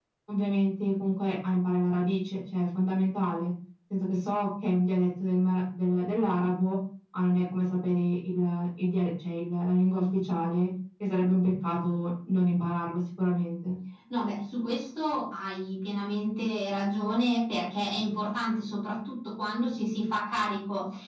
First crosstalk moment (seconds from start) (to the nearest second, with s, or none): none